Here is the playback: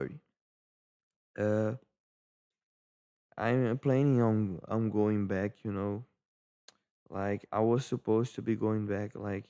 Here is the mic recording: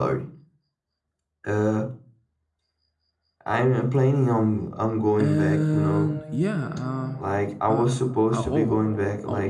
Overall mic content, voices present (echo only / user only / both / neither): both